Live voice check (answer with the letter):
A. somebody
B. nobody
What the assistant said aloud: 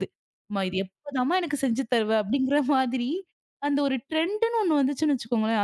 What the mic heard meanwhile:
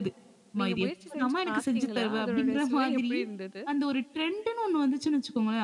A